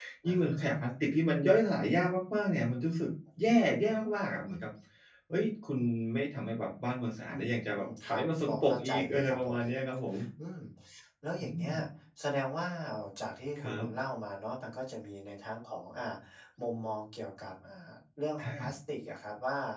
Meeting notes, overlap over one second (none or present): present